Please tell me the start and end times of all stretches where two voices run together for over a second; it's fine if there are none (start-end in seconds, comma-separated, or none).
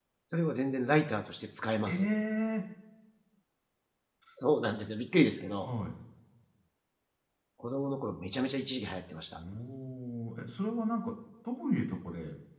none